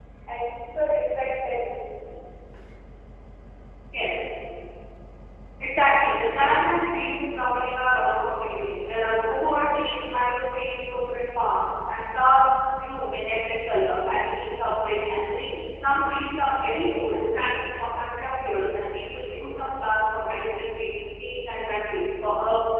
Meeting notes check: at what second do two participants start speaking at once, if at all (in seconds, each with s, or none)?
none